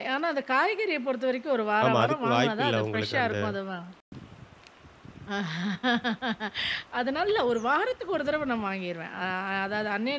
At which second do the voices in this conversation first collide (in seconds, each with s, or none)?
1.8 s